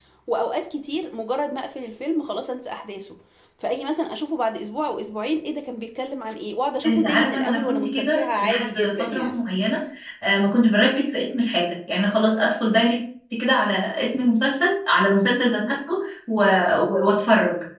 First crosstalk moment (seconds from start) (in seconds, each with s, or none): 6.8 s